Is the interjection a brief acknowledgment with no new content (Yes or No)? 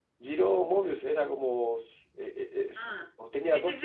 No